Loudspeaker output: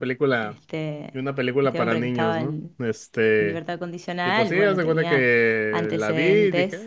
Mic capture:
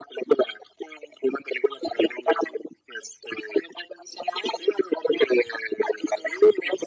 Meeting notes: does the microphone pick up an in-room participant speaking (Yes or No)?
No